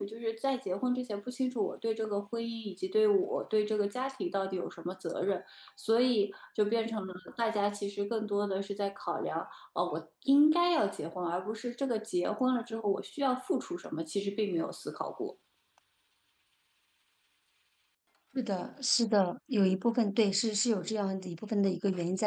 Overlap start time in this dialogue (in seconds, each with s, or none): none